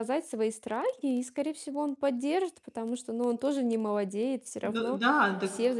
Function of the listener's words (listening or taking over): taking over